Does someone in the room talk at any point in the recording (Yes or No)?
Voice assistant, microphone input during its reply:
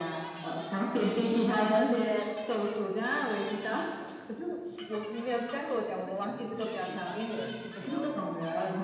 Yes